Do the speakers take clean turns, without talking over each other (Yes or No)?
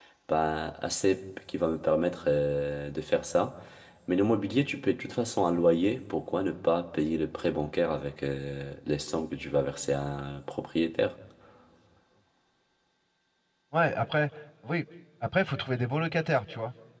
Yes